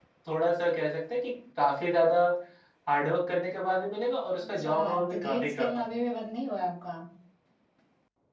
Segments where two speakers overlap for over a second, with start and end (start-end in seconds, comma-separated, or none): 4.4-5.8